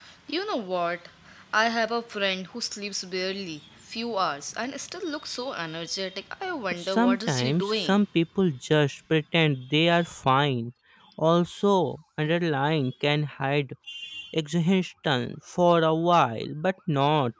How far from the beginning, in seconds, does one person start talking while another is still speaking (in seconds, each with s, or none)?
6.8 s